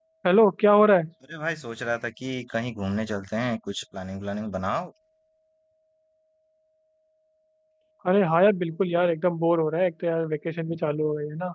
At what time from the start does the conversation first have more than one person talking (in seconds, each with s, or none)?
none